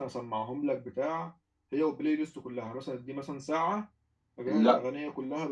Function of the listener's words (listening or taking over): listening